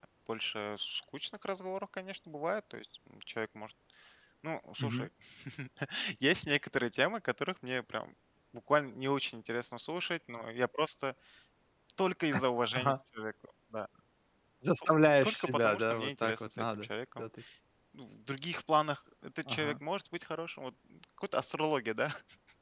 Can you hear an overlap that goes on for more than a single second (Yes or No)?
Yes